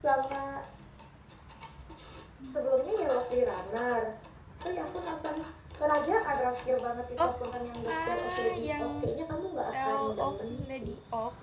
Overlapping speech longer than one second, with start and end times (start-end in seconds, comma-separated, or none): 7.9-9.1, 9.7-10.9